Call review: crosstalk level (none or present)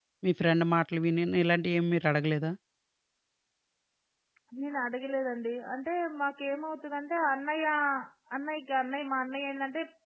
none